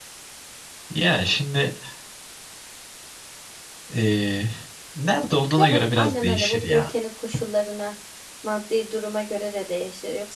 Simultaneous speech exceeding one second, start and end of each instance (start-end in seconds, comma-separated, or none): 5.6-6.9